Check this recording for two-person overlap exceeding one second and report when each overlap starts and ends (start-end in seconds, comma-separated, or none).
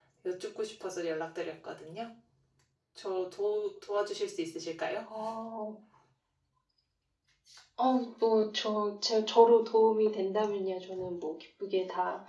none